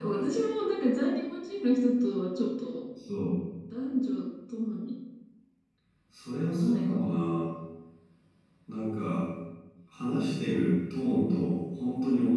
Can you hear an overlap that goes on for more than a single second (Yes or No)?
No